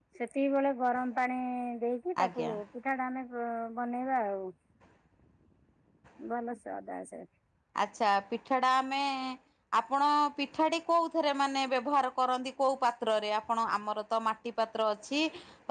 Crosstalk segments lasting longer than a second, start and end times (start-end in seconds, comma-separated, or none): none